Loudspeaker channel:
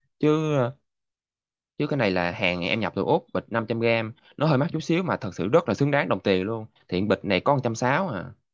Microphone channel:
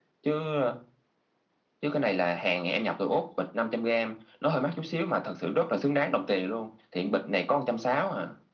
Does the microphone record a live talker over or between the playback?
No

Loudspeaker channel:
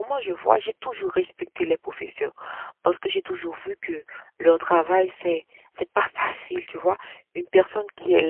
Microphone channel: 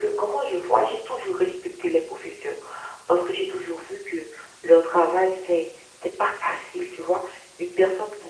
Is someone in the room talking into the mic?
No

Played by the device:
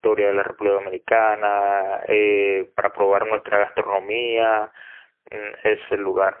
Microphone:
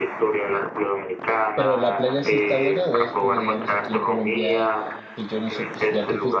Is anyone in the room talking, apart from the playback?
Yes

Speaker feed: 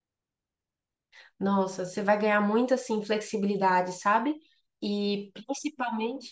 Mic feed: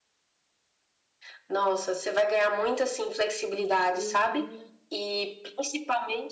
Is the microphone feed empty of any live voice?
No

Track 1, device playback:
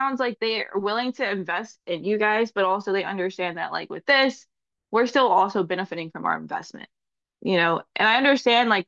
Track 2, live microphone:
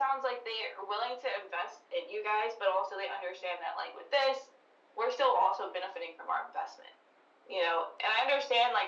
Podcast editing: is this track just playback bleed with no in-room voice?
Yes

